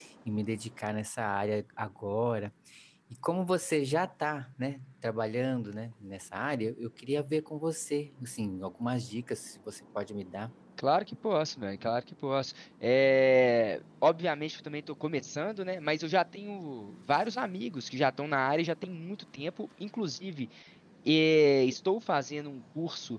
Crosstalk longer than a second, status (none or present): none